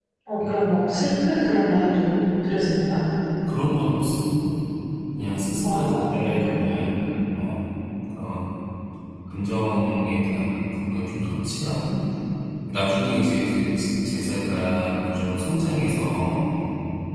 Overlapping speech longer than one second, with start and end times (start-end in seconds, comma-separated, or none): 5.6-7.0